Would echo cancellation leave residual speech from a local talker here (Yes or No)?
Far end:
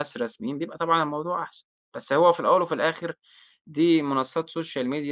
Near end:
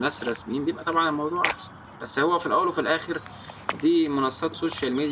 No